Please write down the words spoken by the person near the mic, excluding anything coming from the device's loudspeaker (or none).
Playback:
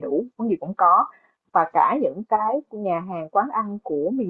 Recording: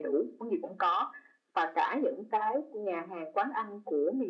none